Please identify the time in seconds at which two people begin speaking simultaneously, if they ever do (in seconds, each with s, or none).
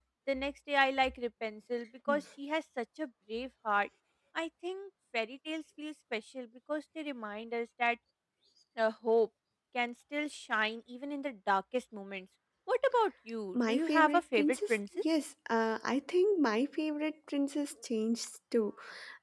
13.5 s